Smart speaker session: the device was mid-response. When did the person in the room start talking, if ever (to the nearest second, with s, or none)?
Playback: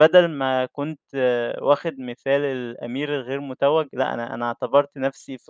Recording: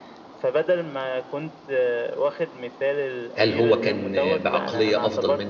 3 s